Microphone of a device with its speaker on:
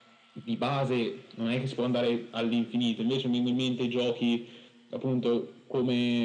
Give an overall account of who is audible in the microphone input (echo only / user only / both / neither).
echo only